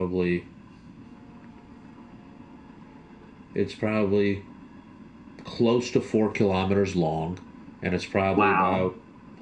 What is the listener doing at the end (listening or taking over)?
listening